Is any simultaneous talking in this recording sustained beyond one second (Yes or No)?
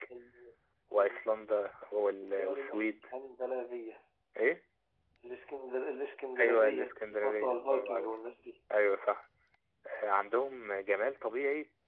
Yes